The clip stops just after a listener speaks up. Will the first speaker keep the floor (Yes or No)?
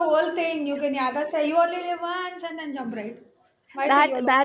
No